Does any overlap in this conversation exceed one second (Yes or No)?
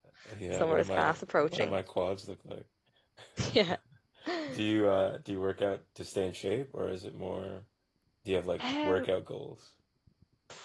Yes